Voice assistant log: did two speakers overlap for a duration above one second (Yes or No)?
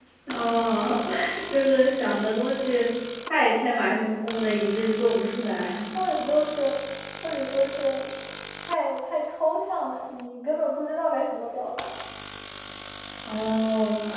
No